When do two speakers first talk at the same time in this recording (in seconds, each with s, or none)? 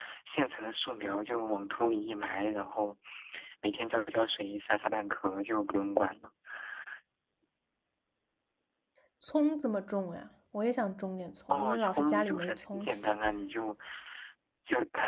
11.5 s